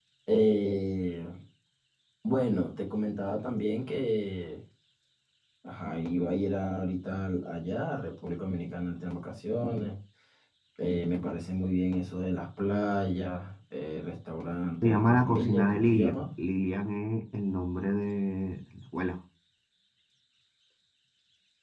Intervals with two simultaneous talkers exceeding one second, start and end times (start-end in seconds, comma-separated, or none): 14.8-16.3